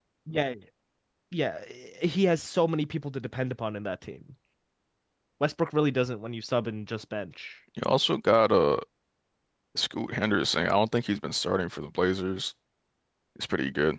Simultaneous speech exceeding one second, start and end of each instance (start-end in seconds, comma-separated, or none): none